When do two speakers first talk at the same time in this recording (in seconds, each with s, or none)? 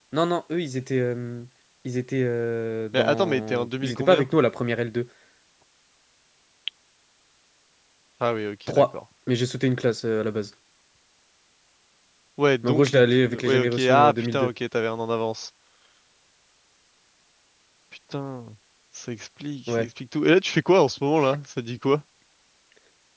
2.9 s